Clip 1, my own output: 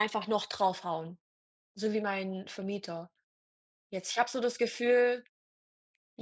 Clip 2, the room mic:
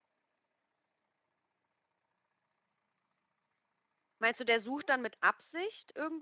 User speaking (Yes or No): Yes